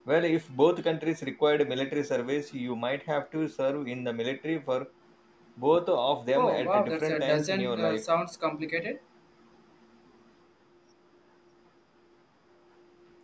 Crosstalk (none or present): present